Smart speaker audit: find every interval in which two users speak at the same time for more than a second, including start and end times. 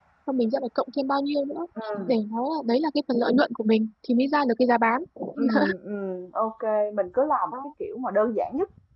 none

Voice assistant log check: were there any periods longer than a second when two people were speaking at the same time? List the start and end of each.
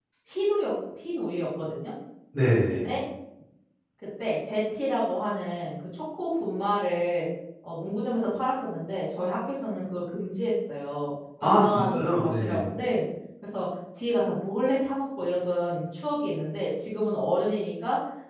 11.4-12.7

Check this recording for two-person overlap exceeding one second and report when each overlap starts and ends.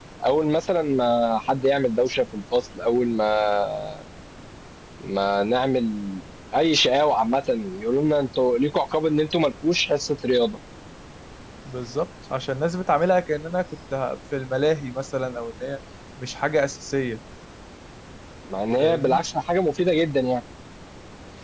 none

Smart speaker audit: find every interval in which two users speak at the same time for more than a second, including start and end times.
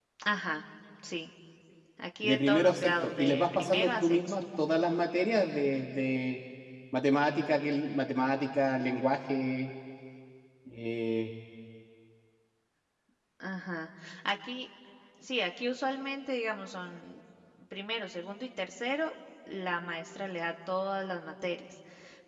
2.2-4.3

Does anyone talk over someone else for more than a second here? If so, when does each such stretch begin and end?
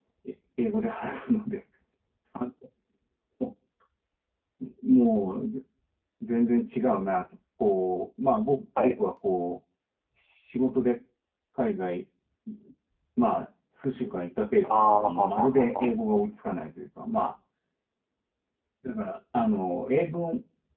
14.6-15.9

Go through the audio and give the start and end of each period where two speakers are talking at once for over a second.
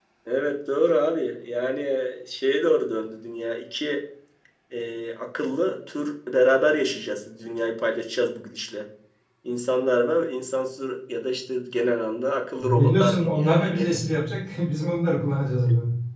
12.6-13.9

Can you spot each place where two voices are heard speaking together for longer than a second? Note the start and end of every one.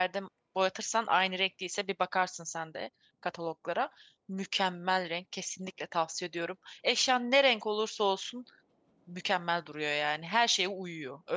none

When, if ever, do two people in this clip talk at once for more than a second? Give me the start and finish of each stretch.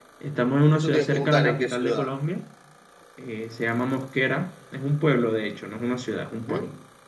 0.7-2.1

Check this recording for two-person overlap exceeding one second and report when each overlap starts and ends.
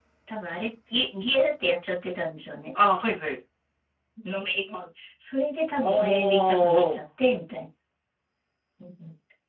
5.8-7.0

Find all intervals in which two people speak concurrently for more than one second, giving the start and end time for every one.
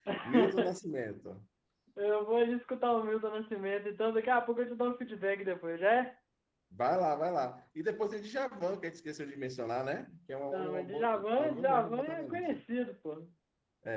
10.5-12.5

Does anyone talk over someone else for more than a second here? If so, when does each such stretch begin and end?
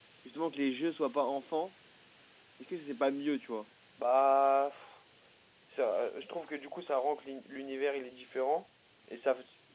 none

